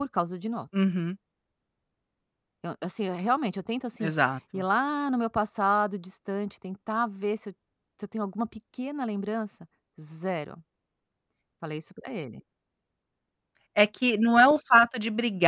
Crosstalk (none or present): none